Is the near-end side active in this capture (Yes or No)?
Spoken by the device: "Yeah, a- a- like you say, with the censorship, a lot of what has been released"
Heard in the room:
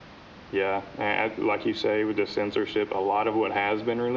No